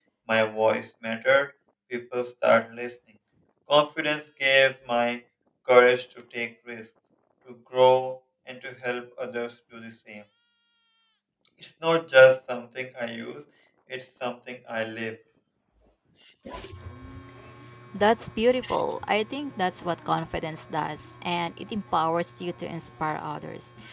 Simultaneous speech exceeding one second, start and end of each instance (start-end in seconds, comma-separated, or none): none